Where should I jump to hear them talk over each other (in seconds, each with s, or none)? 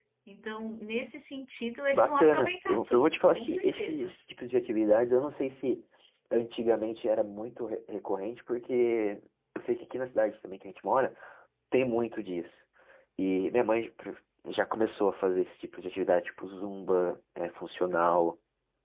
1.9 s